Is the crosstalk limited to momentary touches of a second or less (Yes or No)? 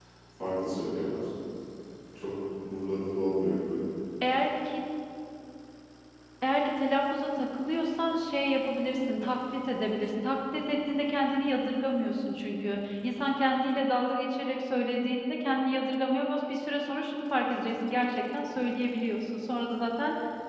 Yes